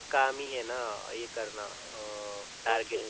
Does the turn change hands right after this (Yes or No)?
Yes